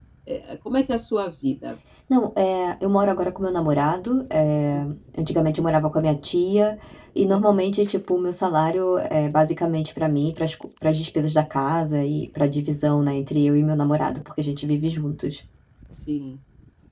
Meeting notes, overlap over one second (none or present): none